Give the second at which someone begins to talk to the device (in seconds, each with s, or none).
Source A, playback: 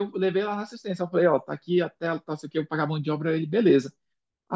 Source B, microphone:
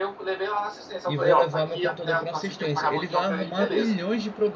1.1 s